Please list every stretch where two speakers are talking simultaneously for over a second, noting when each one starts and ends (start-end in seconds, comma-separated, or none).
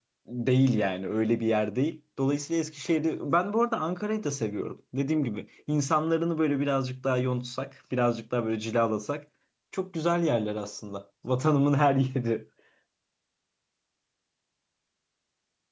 none